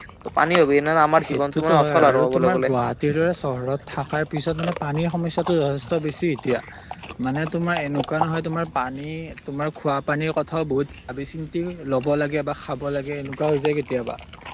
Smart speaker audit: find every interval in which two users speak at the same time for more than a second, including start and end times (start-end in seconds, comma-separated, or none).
1.3-2.7